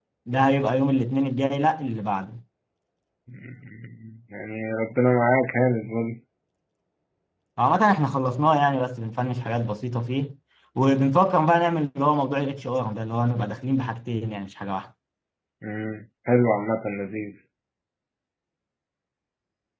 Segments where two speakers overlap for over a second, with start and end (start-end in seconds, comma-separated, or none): none